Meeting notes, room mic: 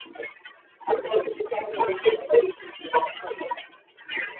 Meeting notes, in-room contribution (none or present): present